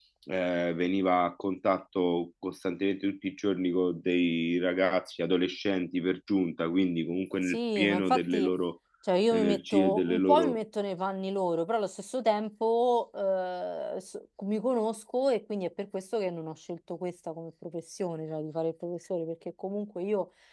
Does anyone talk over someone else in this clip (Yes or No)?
Yes